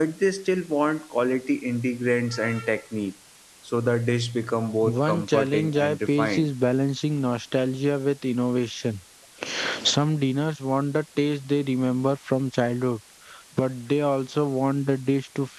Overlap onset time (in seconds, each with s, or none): 4.8 s